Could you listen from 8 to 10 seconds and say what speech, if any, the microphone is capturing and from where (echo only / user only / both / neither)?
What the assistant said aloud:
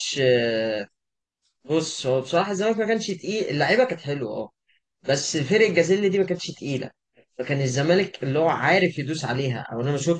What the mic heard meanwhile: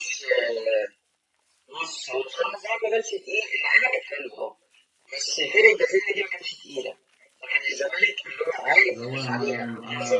both